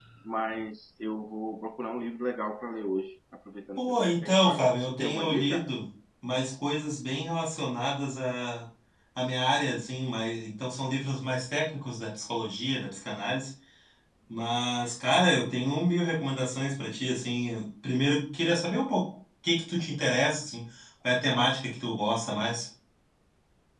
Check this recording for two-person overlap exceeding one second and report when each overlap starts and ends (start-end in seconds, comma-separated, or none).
3.8-5.7